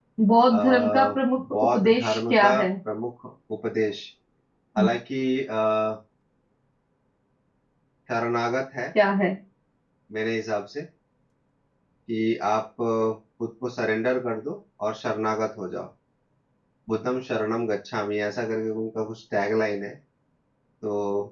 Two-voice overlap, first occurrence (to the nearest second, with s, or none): 1 s